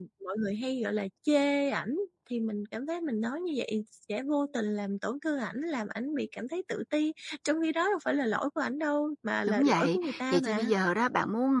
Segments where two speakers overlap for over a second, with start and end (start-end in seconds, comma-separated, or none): 9.5-10.7